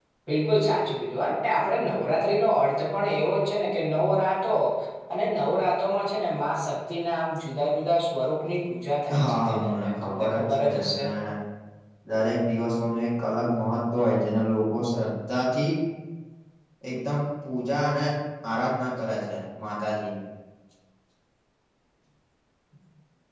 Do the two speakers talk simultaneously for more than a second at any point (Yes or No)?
Yes